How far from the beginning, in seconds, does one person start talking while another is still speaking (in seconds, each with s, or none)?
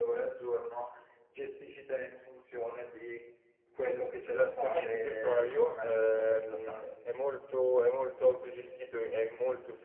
4.3 s